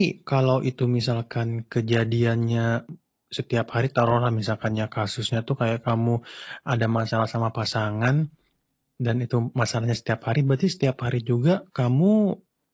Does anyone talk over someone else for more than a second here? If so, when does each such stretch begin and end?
none

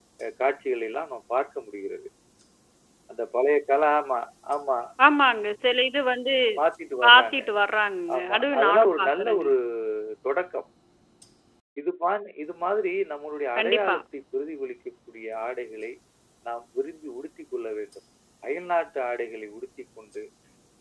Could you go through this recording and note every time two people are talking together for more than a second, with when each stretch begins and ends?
8.2-9.5

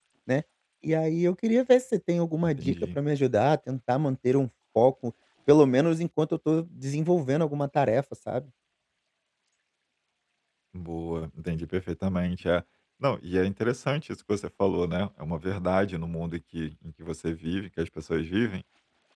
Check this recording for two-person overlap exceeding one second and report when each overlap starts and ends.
none

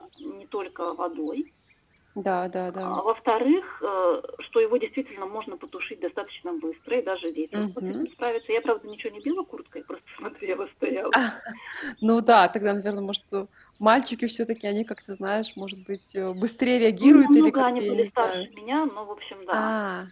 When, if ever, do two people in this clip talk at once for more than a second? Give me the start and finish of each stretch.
17.0-18.5

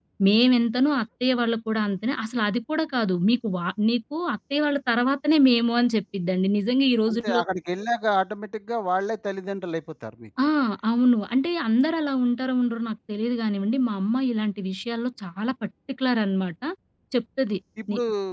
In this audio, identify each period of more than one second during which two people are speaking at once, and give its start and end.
none

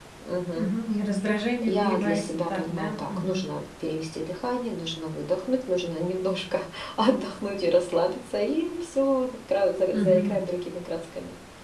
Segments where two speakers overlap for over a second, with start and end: 1.6-3.5

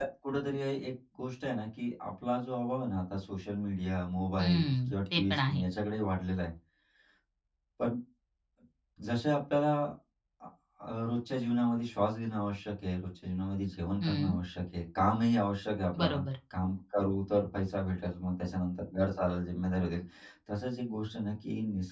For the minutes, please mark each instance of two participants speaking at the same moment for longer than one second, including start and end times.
4.4-5.6

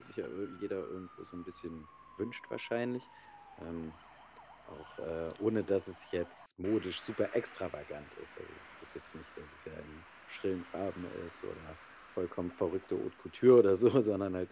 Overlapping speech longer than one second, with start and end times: none

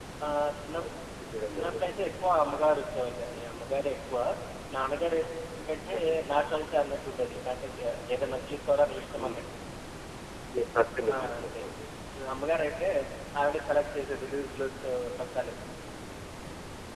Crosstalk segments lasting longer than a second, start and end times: none

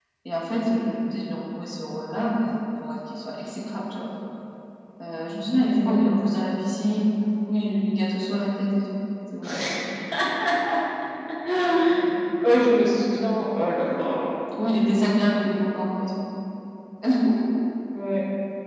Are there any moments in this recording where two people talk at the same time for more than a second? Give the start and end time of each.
none

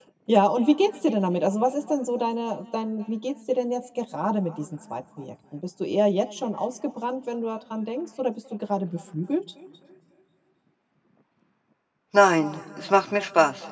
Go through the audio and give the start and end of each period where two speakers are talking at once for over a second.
none

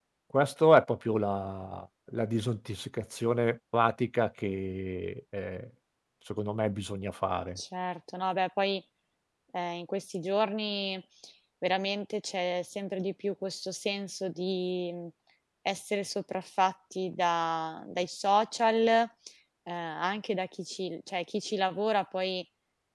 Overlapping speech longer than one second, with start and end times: none

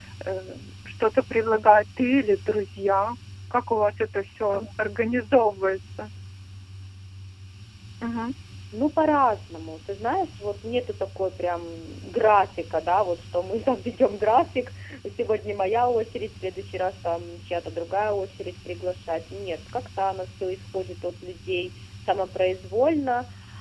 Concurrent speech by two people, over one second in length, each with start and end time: none

